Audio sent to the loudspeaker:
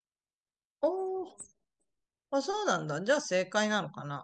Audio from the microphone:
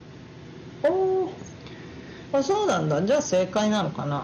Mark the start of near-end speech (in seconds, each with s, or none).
none